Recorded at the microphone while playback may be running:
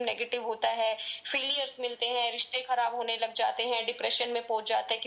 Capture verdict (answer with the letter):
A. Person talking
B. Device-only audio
B